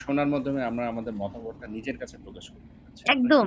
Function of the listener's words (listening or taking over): taking over